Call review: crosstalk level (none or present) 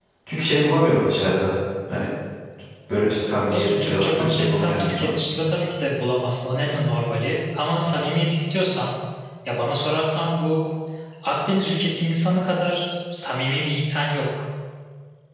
present